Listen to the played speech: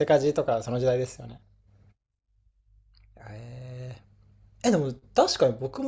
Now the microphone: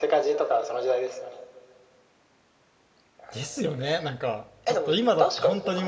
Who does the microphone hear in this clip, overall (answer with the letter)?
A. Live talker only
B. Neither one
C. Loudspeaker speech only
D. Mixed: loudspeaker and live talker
D